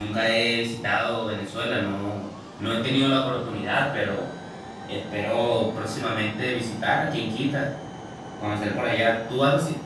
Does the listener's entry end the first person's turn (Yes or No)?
No